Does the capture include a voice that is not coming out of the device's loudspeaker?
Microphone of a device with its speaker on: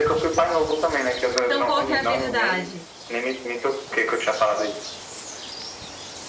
Yes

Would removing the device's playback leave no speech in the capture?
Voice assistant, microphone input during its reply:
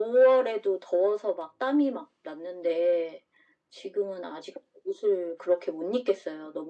Yes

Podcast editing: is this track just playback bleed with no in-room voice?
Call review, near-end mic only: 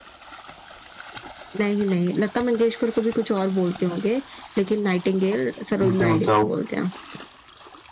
No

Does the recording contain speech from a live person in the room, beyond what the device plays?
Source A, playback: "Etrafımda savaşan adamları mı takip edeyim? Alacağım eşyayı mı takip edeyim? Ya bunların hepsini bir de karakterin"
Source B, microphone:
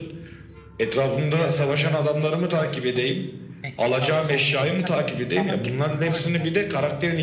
Yes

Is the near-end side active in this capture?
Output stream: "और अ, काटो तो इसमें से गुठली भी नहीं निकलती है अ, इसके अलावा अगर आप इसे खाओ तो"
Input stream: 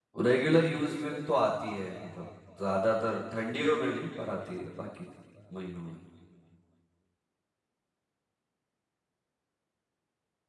Yes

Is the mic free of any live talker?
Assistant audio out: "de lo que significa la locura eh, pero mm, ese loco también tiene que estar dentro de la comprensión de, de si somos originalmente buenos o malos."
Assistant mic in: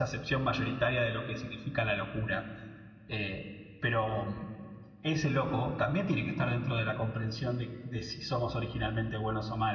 Yes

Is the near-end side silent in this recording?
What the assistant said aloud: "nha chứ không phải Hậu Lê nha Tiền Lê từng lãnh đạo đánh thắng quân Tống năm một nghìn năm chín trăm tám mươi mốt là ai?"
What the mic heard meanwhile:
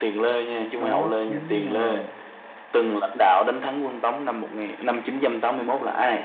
No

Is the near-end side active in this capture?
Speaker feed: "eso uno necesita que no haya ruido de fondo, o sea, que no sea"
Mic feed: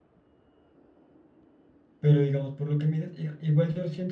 Yes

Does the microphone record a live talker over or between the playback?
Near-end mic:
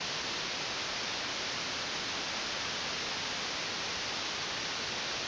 No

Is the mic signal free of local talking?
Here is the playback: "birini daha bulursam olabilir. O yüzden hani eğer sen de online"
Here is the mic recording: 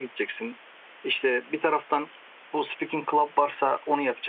No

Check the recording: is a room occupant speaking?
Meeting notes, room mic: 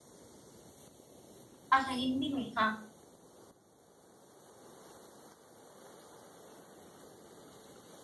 Yes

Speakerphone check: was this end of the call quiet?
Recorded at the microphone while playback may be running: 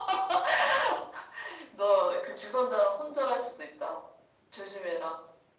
Yes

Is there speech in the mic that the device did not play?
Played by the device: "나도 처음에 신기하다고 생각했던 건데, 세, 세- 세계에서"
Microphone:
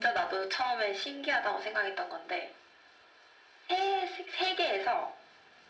No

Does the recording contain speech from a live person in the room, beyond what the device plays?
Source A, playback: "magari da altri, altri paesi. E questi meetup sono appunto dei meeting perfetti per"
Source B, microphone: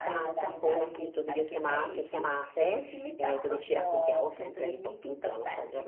Yes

